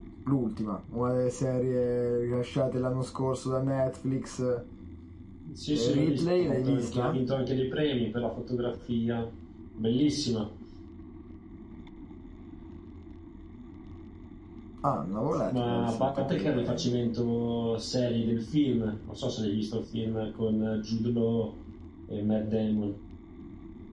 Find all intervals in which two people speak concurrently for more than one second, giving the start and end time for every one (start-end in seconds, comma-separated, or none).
5.7-7.2, 15.4-16.9